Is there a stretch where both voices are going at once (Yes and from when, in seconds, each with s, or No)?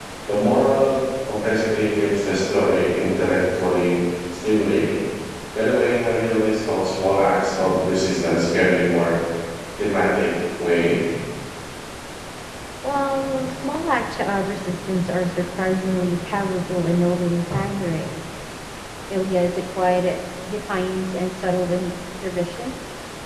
No